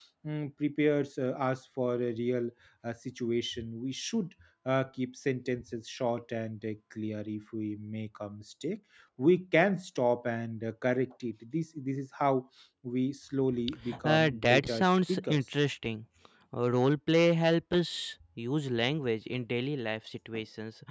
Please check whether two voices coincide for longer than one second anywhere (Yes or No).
Yes